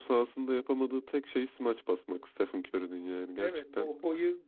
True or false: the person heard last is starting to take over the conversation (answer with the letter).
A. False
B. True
B